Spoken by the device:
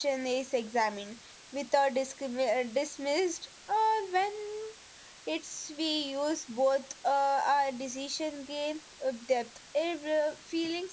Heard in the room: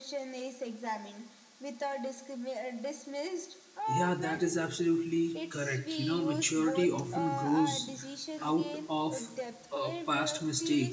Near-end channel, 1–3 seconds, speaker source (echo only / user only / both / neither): echo only